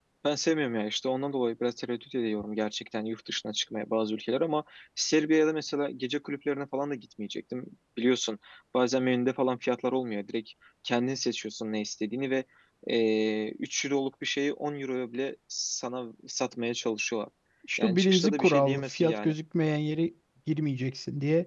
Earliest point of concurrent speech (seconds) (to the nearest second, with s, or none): 18 s